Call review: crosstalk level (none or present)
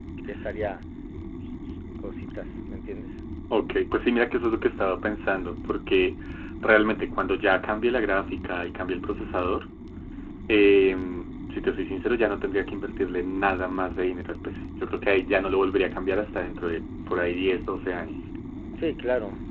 none